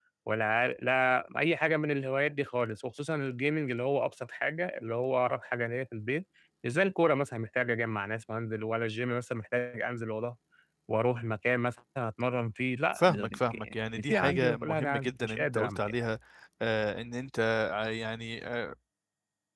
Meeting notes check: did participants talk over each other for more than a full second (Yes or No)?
Yes